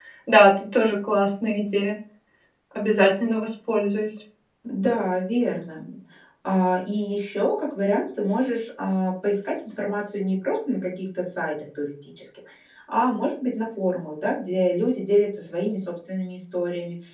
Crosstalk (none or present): none